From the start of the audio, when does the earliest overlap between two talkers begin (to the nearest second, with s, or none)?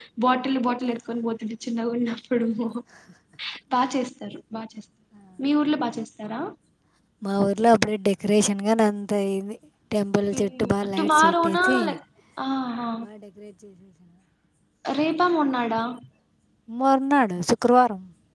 10 s